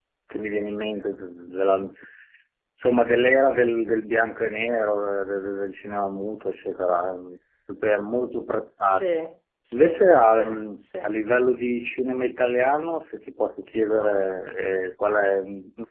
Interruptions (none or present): present